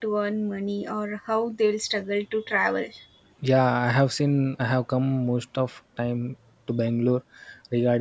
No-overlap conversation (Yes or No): Yes